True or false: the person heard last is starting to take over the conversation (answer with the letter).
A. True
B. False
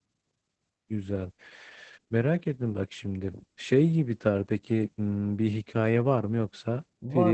A